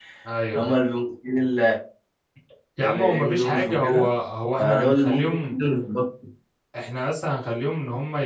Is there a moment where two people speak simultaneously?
Yes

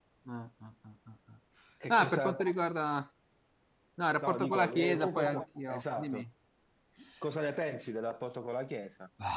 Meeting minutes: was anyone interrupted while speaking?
Yes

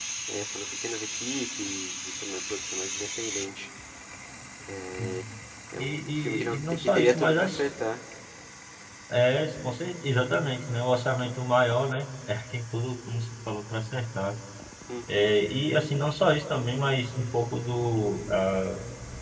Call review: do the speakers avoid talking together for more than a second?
No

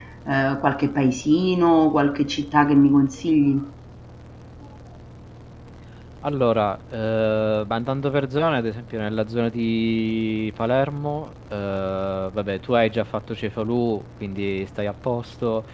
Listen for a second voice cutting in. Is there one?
No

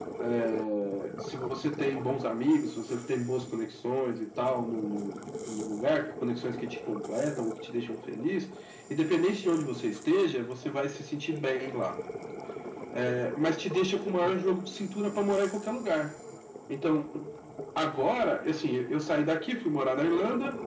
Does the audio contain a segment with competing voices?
No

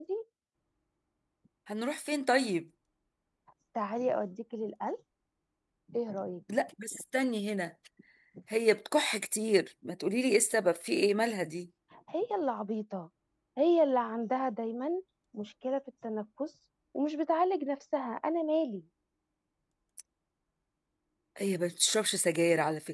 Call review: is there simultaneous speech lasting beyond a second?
No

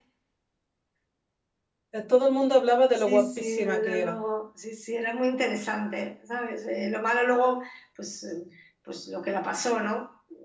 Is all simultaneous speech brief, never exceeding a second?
No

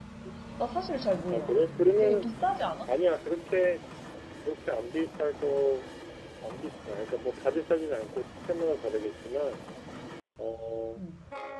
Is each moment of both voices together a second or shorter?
Yes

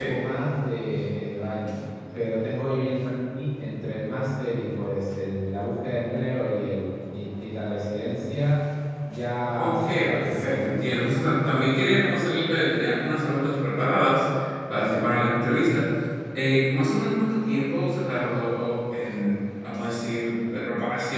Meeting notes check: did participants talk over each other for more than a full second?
Yes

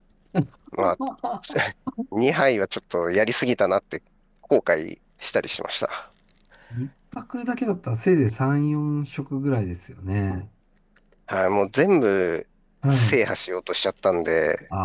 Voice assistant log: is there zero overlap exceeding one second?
Yes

